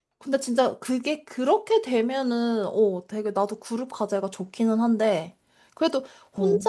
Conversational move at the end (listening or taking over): listening